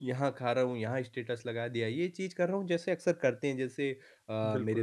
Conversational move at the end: listening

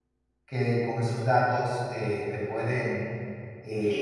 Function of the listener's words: taking over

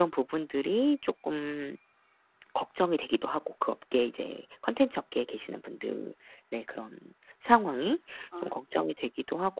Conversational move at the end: listening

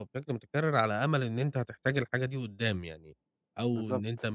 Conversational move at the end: listening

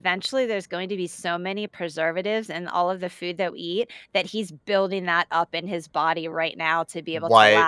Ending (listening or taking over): listening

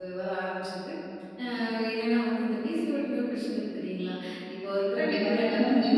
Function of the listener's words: taking over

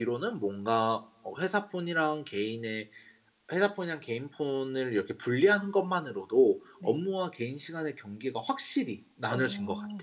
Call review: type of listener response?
taking over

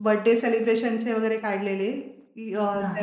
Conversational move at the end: listening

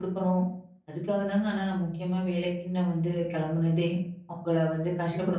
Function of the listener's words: taking over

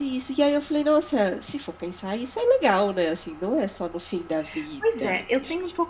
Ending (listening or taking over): taking over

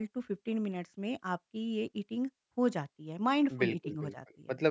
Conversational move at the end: taking over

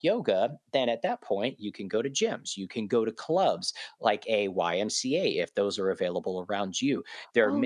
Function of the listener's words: listening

